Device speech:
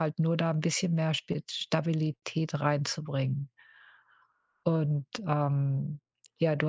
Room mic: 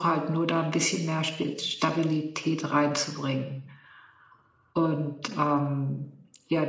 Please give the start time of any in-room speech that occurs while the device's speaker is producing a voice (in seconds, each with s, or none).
none